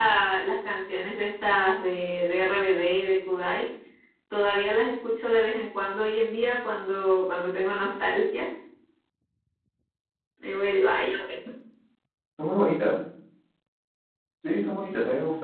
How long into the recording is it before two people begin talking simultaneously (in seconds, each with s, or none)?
none